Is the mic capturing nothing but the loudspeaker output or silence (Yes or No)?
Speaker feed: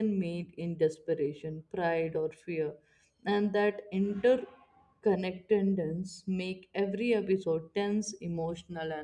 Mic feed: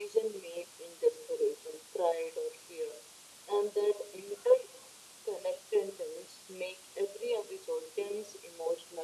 Yes